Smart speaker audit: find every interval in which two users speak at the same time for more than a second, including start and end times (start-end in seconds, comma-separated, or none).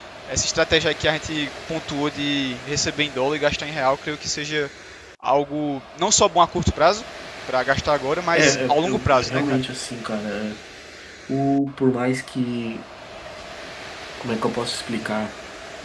8.3-9.6